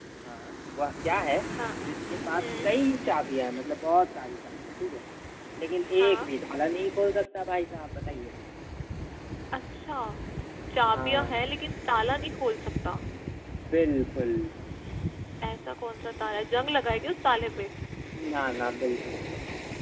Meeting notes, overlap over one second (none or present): none